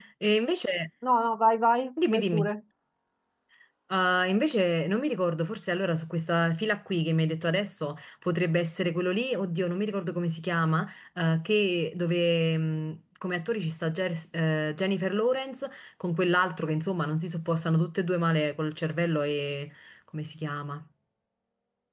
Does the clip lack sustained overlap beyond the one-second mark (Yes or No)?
Yes